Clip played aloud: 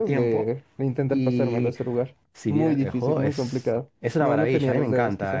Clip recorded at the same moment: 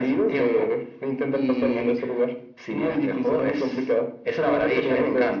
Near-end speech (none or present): none